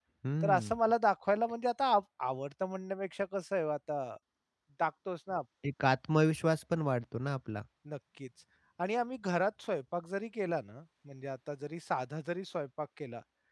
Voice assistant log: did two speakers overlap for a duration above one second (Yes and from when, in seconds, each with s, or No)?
No